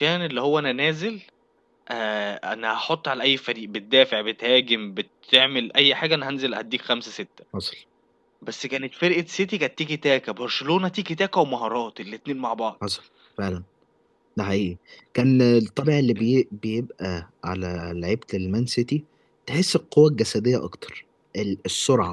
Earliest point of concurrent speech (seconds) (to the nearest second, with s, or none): none